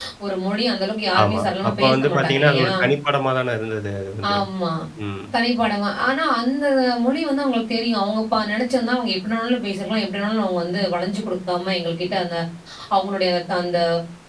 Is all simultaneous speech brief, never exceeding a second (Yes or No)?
No